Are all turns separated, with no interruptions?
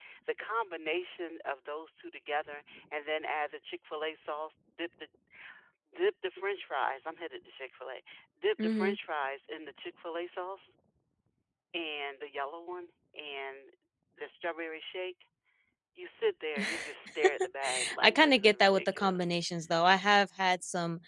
No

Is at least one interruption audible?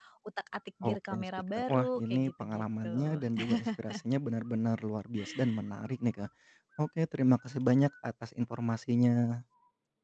Yes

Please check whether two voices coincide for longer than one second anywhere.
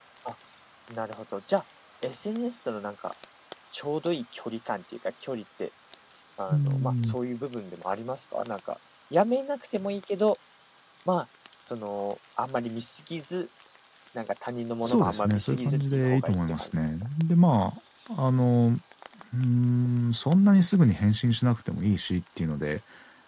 Yes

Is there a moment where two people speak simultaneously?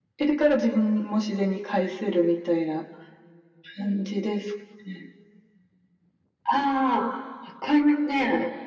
No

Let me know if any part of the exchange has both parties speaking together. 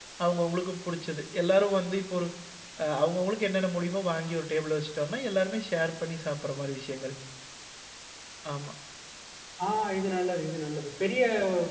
No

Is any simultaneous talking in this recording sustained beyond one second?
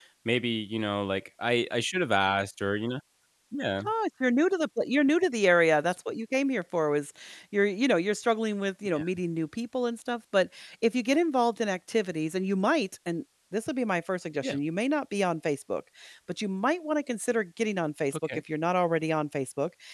No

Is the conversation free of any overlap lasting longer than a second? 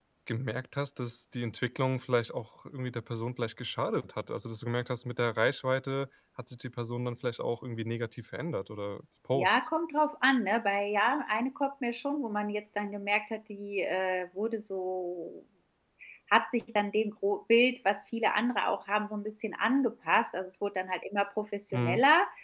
Yes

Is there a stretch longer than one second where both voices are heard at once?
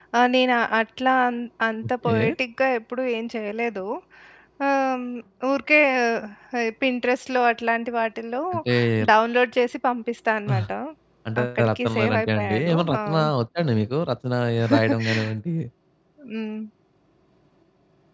Yes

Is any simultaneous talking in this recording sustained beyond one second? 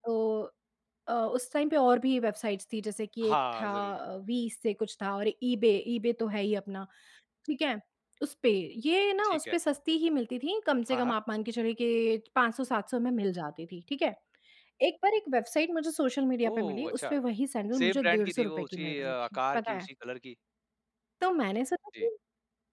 Yes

